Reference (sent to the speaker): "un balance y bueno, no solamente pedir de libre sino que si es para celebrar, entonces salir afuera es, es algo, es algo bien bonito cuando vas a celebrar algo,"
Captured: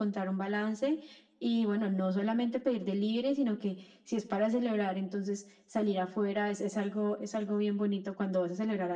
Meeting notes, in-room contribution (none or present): none